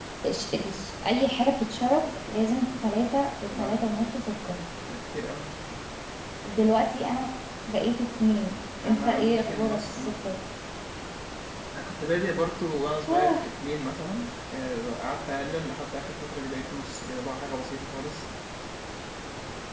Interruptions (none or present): present